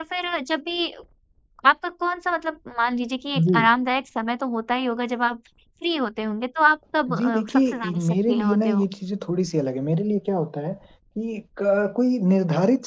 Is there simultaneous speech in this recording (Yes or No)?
Yes